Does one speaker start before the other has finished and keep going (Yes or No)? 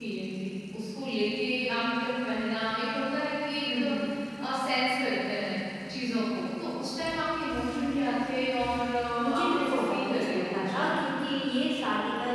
Yes